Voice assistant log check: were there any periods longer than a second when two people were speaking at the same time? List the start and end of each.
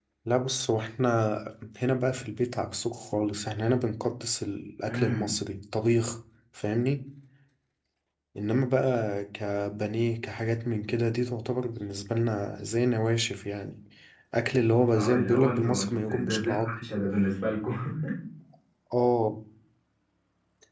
15.0-16.9

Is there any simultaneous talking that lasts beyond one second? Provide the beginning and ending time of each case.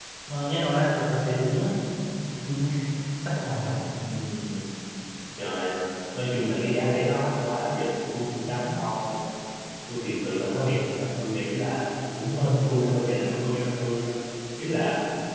none

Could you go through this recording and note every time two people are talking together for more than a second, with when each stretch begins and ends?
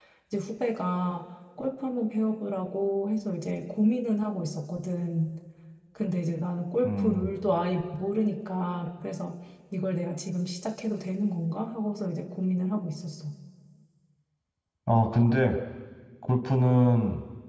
none

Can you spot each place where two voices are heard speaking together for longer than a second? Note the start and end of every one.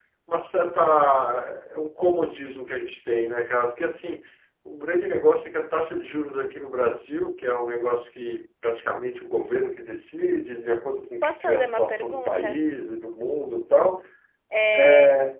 11.2-12.6

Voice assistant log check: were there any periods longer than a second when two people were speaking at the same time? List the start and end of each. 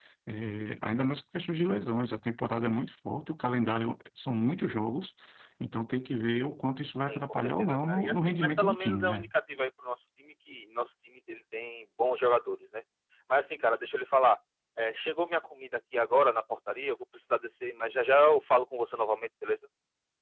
7.0-9.3

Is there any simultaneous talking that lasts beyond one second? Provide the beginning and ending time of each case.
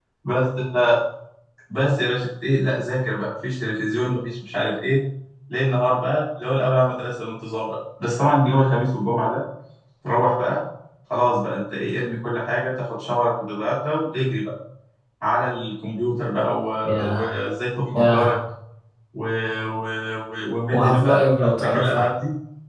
20.7-22.1

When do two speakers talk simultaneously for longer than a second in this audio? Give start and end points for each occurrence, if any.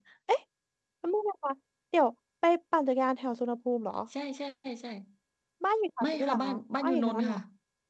6.0-7.4

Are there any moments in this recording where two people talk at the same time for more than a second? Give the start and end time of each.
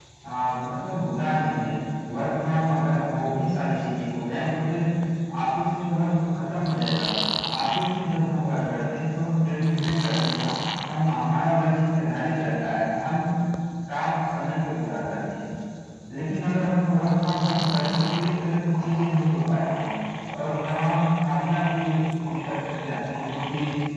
none

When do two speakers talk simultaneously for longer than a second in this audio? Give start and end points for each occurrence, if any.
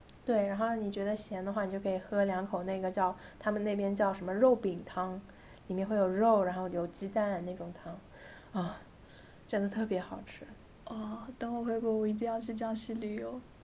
none

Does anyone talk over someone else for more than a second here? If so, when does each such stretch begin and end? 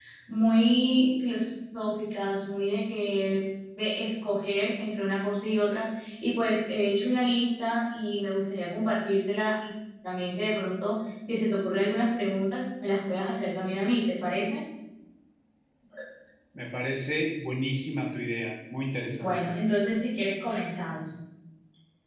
none

